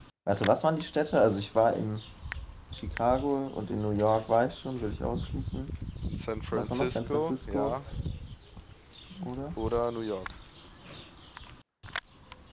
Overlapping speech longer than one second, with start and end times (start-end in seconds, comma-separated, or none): 6.5-7.8